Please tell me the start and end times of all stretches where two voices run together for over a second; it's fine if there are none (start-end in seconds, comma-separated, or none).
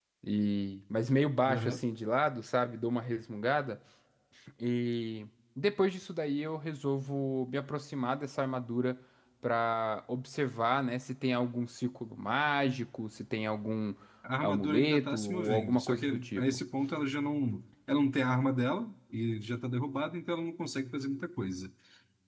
14.4-16.4